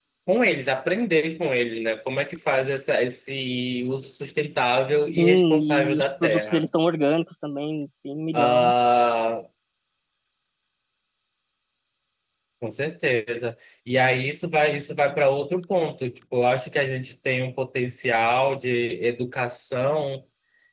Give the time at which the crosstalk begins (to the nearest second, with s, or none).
5 s